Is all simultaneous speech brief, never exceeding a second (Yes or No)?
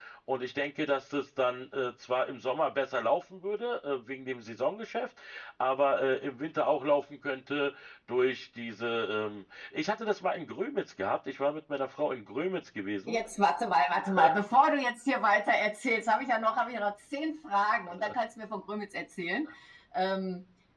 Yes